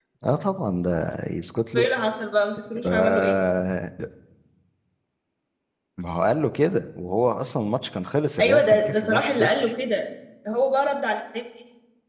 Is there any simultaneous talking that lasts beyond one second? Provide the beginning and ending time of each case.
8.4-9.7

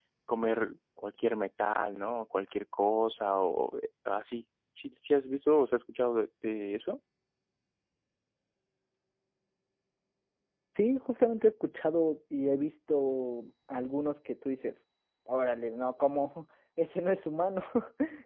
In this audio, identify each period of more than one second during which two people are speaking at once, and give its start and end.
none

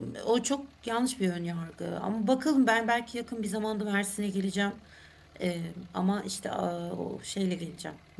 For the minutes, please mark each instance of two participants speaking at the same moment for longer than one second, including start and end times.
none

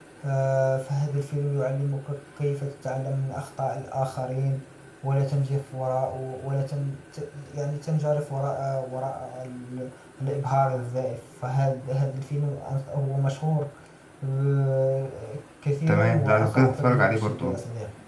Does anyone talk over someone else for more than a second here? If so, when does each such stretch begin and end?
15.9-17.6

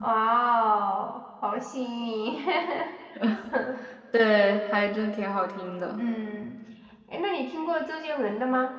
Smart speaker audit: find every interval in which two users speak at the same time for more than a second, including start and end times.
none

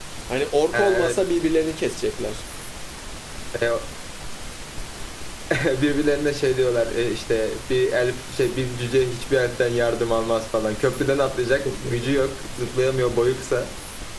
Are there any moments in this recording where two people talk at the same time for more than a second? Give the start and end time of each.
none

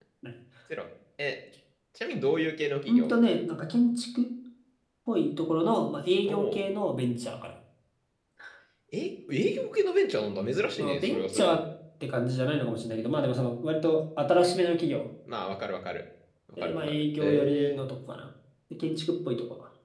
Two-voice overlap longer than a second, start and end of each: 10.3-11.6, 16.6-17.9

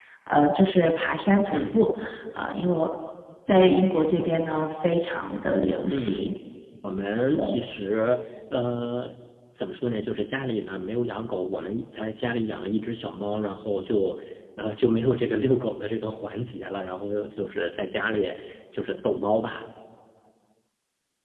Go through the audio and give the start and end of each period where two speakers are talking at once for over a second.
none

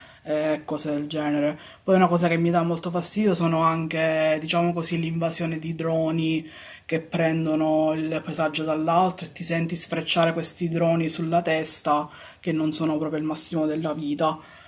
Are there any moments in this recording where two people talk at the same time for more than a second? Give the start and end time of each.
none

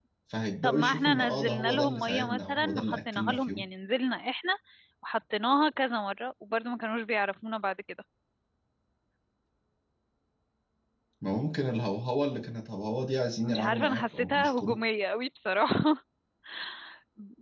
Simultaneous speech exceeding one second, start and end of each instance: 0.6-3.6, 13.4-14.8

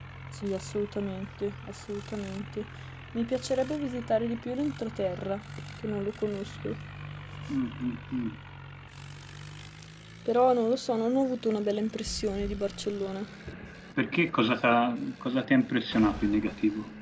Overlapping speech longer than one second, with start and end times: none

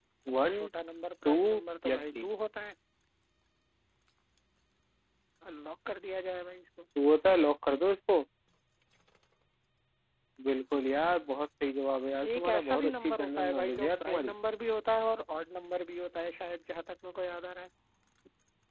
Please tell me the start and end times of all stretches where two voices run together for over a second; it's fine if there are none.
12.2-14.3

